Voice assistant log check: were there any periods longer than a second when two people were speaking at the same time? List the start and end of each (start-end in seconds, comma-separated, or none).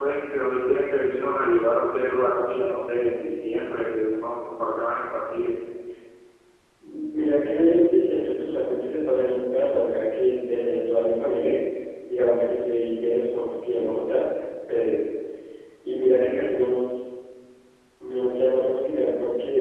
none